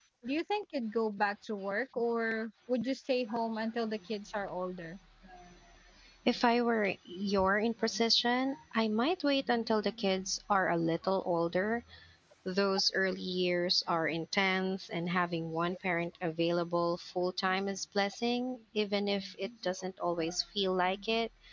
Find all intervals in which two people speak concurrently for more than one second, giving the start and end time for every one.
none

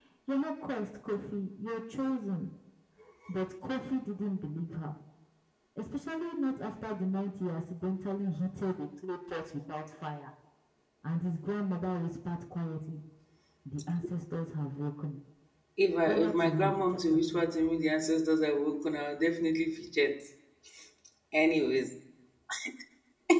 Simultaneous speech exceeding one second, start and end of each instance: 16.1-17.4

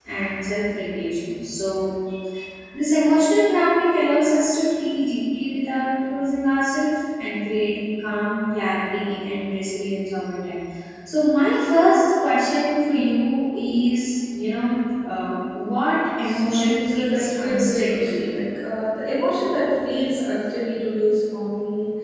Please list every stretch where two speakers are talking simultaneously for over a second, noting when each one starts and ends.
16.2-18.3

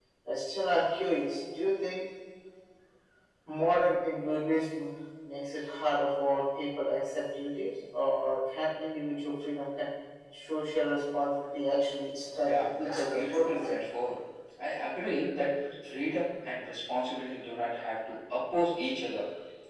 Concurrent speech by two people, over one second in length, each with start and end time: 12.4-13.8

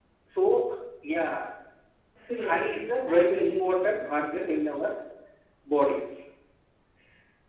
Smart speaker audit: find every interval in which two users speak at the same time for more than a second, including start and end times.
2.4-4.0

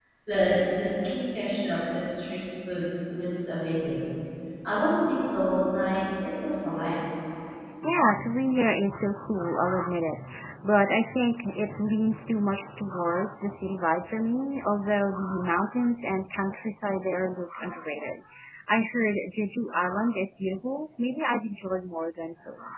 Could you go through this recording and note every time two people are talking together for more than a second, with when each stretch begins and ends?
none

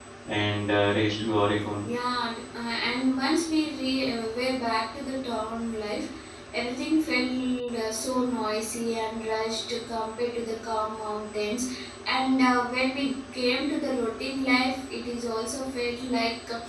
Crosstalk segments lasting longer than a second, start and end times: none

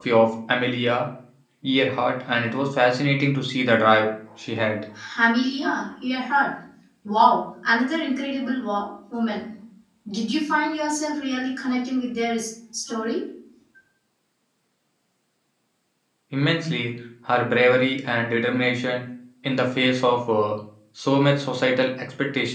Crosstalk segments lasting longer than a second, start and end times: none

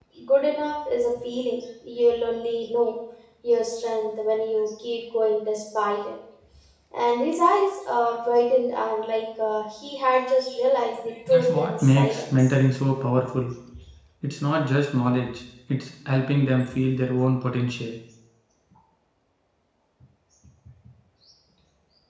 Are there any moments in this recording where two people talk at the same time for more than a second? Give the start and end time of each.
11.3-12.5

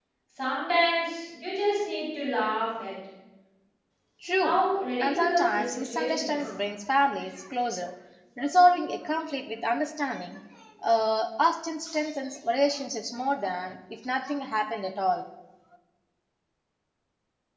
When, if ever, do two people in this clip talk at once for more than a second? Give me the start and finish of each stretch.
5.0-6.5

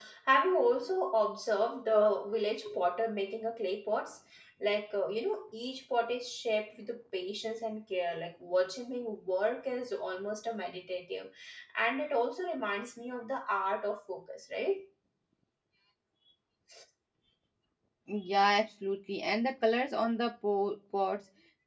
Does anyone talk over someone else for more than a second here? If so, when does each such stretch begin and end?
none

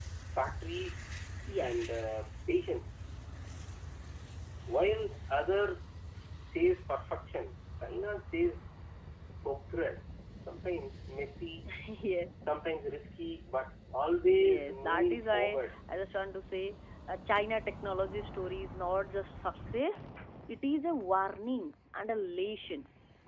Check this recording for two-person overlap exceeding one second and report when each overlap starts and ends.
14.3-15.7

